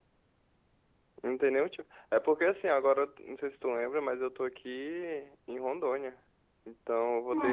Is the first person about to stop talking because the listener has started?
No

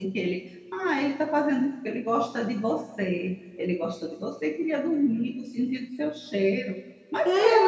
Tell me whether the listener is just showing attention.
Yes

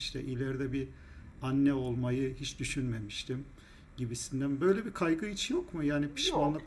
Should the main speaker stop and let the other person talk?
Yes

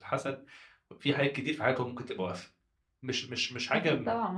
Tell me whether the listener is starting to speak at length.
Yes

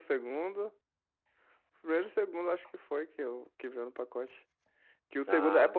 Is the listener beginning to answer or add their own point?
No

